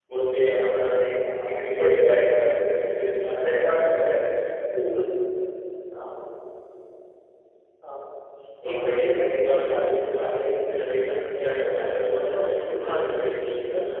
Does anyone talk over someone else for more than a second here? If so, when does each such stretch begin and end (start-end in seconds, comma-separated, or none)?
1.5-2.7, 8.7-11.4, 12.1-13.3